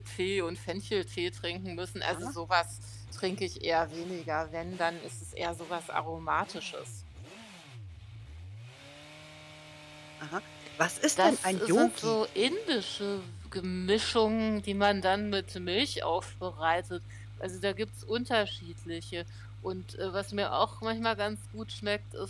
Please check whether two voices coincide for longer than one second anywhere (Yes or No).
Yes